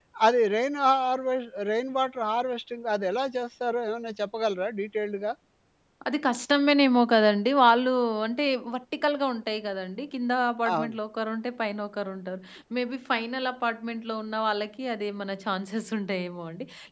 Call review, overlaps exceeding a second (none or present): none